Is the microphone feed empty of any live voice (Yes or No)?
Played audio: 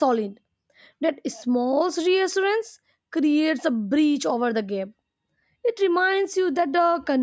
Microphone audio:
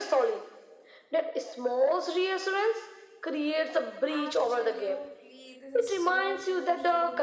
No